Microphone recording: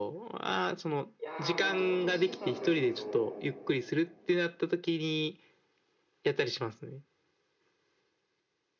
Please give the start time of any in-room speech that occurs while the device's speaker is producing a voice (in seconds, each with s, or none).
1.2 s